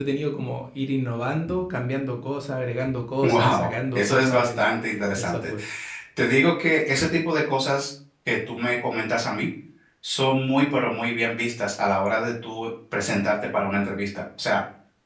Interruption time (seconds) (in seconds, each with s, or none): 3.2 s